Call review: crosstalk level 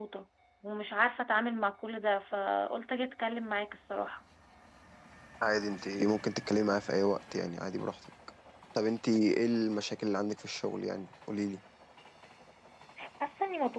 none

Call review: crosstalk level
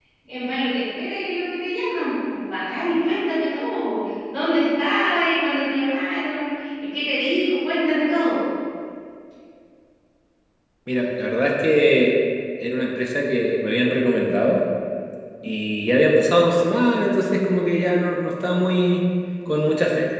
none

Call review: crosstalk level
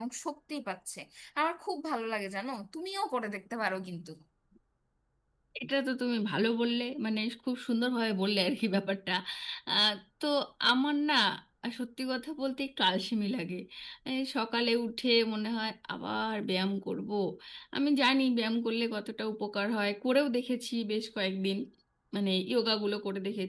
none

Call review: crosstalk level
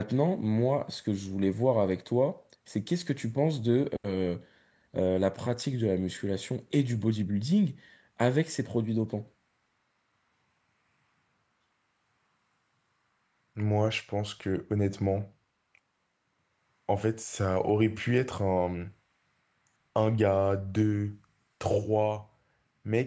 none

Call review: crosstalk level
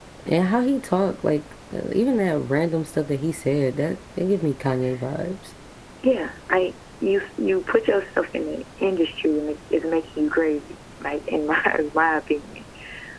none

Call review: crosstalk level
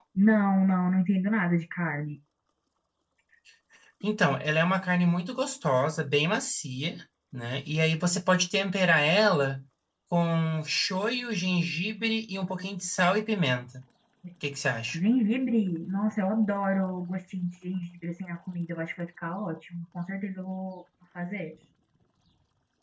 none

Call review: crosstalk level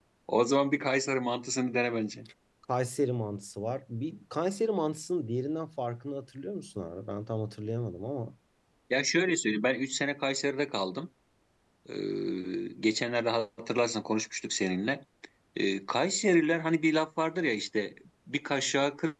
none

